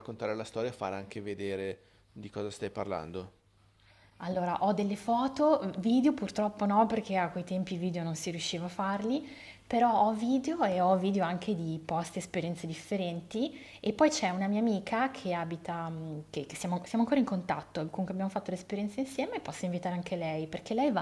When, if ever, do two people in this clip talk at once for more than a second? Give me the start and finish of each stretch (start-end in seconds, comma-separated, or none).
none